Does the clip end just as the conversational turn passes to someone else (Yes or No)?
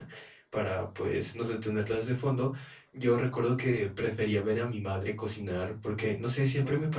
No